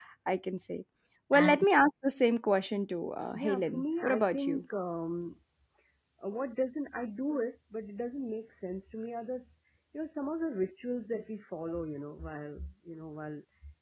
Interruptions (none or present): present